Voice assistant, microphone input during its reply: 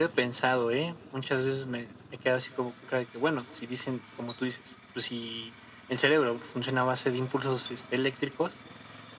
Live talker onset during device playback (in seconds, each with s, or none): none